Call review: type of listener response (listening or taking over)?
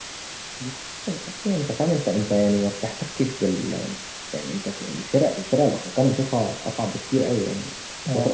listening